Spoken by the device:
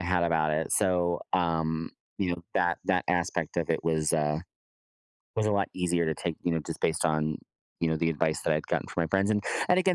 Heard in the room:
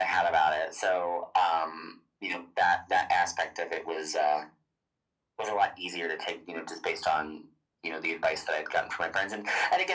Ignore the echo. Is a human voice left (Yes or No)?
No